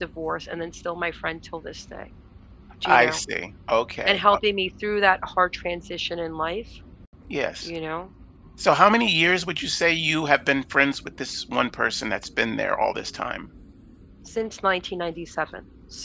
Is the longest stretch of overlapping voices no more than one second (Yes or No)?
Yes